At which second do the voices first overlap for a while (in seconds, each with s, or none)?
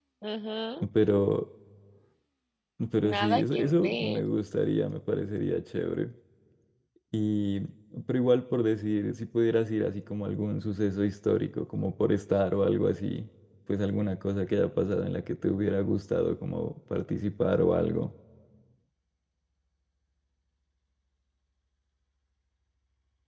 3.0 s